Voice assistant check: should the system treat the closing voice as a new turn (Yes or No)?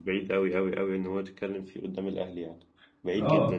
Yes